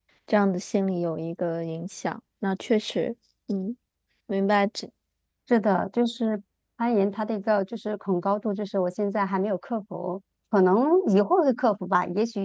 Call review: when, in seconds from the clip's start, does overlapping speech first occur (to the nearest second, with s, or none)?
none